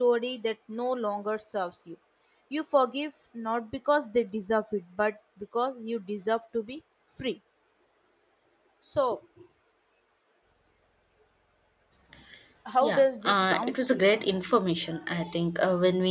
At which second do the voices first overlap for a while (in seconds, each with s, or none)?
12.8 s